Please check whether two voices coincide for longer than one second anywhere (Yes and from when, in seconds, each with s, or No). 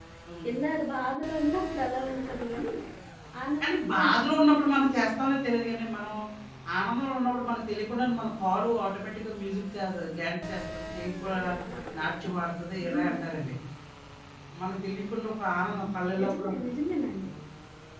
Yes, from 3.6 s